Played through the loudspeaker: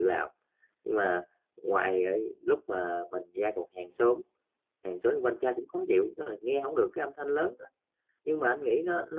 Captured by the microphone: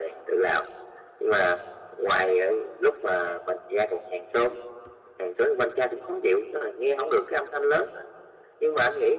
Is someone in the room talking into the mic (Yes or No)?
No